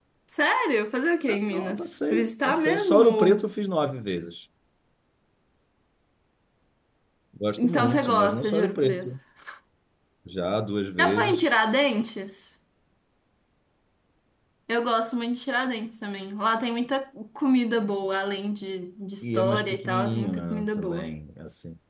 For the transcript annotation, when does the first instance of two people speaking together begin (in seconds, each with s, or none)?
1.3 s